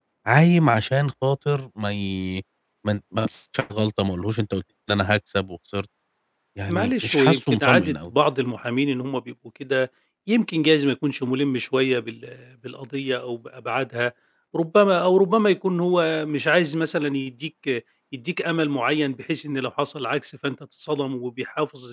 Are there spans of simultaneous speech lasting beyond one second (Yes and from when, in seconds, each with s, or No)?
Yes, from 6.7 s